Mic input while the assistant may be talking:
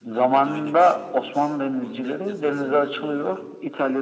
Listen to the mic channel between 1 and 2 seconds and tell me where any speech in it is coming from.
both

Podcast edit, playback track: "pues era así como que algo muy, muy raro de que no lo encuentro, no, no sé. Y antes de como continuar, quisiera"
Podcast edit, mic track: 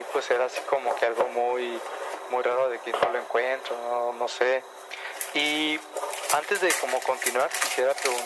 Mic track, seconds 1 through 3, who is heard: echo only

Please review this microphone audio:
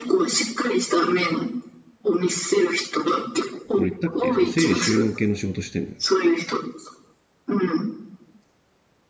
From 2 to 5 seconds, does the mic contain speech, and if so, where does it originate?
both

